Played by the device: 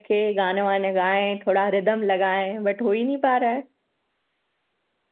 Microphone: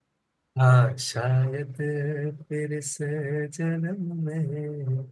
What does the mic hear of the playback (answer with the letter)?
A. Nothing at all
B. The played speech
A